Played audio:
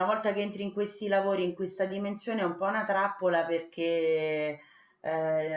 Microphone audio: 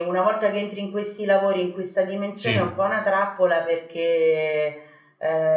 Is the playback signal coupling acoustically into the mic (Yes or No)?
Yes